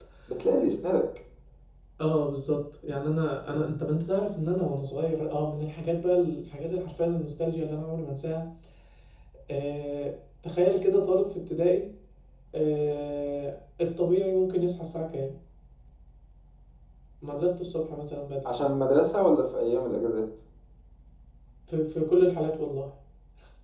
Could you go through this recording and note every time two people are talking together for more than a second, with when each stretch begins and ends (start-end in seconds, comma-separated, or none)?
none